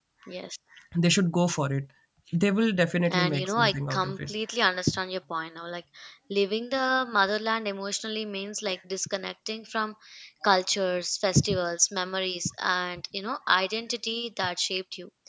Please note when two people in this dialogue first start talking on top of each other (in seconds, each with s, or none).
3.1 s